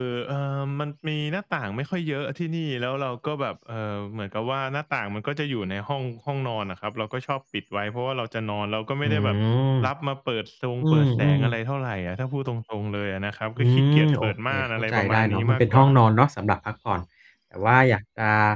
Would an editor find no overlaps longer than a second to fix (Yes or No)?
No